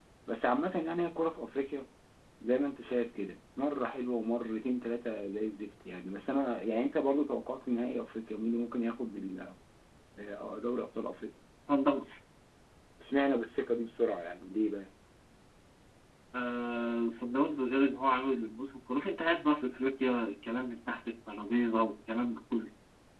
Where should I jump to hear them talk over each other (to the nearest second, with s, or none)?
none